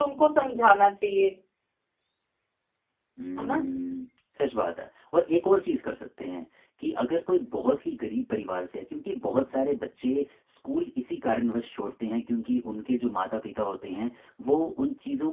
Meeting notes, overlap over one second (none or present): none